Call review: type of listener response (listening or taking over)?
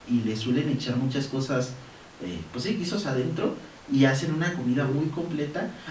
listening